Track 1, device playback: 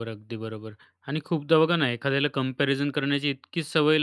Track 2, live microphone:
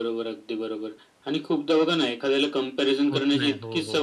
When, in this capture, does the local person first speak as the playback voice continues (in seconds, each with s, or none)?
3.1 s